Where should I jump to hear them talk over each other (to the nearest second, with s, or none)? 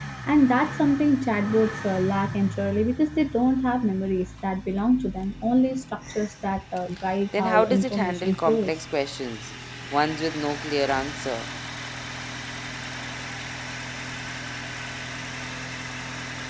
7 s